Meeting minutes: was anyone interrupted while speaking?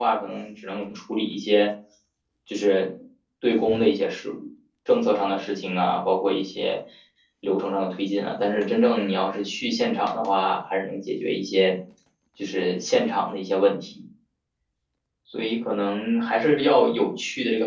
No

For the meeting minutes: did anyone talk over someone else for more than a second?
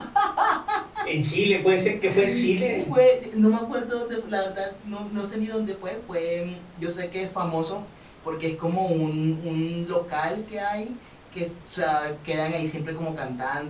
No

